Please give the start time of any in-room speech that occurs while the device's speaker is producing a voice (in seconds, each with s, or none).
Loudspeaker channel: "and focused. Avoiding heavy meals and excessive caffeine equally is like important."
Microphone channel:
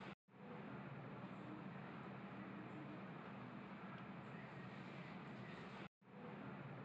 none